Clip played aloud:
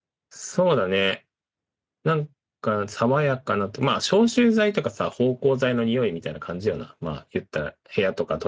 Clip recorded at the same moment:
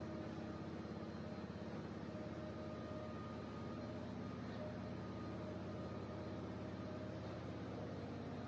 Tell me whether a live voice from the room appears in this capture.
No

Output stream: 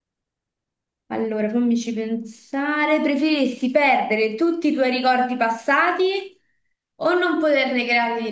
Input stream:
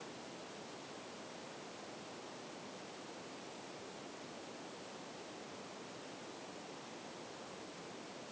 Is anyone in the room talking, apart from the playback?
No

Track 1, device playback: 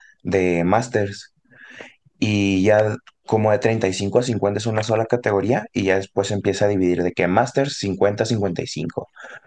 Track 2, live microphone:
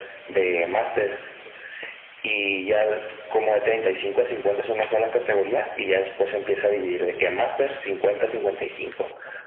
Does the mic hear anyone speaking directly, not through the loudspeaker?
No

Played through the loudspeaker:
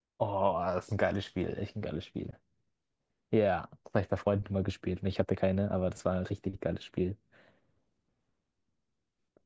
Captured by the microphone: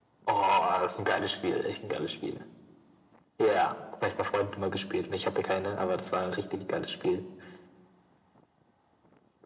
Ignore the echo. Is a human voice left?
No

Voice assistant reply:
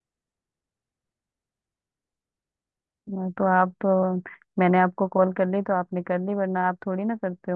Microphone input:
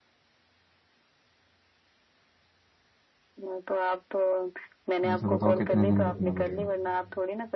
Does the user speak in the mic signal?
Yes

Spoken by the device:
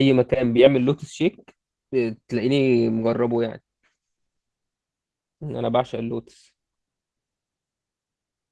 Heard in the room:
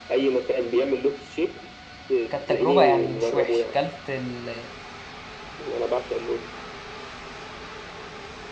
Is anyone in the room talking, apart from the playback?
Yes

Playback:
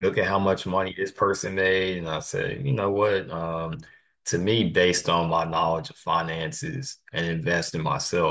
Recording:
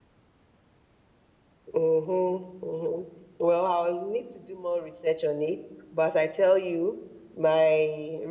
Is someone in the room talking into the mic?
Yes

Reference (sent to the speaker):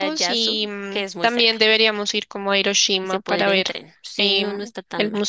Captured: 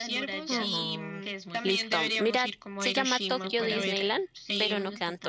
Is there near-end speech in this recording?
Yes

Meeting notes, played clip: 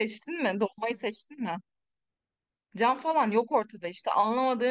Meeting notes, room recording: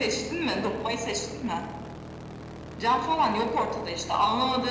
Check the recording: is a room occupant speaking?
No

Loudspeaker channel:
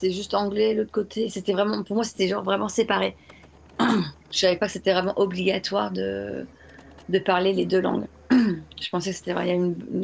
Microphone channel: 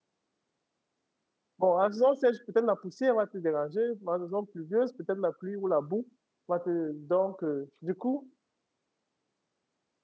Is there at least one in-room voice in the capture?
Yes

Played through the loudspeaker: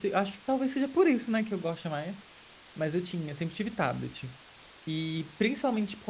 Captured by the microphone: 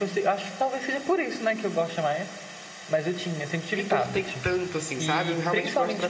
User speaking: Yes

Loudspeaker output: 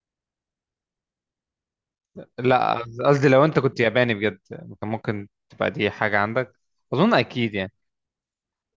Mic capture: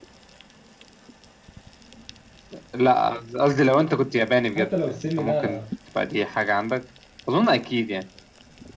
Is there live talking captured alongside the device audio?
Yes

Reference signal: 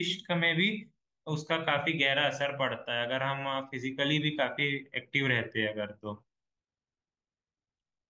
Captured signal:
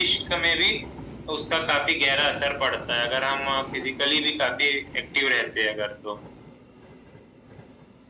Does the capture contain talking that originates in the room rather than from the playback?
No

